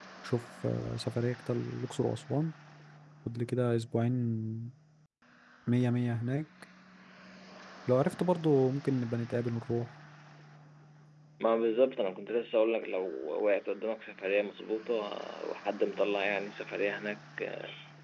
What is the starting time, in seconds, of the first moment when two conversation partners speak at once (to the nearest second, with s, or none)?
none